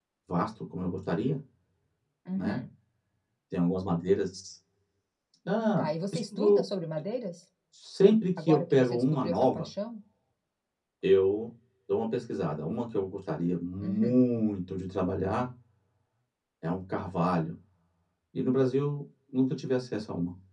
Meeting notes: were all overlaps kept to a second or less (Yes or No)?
No